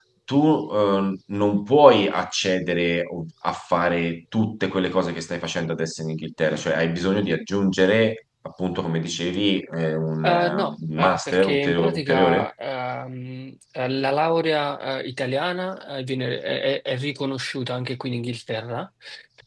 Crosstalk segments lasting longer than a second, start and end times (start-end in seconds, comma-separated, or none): 10.2-12.5